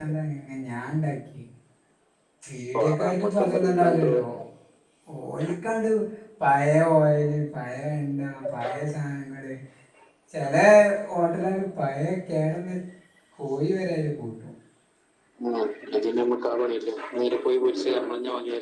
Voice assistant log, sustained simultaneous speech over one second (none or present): present